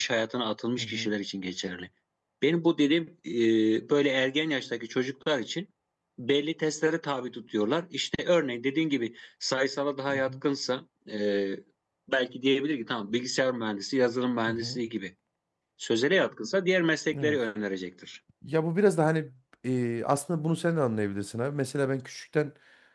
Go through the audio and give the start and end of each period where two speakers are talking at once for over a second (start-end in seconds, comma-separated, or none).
none